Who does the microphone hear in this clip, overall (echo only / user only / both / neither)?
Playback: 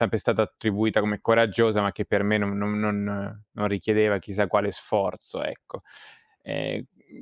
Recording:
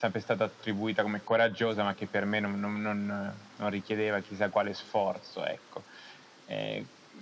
echo only